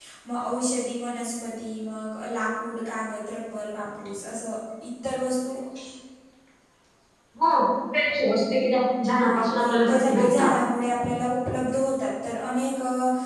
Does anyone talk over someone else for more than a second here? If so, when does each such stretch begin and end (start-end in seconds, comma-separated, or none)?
9.2-10.5